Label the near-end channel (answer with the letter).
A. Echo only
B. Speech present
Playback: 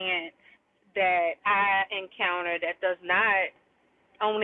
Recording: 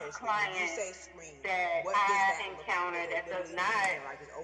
B